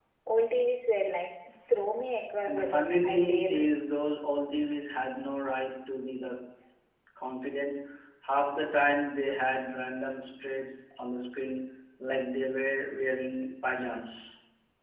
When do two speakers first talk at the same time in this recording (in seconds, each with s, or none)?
2.4 s